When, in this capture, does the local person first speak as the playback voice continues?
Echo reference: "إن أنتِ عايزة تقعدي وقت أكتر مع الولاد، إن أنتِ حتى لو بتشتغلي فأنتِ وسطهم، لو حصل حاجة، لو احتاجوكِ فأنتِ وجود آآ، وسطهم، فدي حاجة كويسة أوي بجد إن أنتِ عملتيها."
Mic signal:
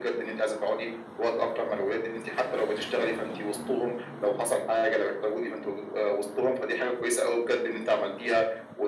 none

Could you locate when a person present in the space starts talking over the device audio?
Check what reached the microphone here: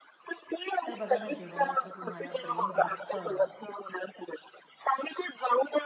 0.9 s

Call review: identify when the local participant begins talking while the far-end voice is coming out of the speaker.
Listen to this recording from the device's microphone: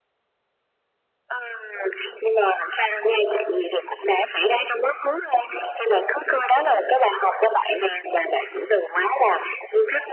none

